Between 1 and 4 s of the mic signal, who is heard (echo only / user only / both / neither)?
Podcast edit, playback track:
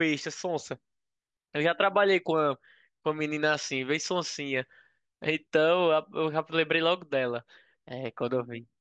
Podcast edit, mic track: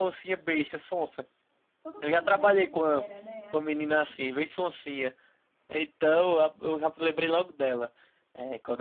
both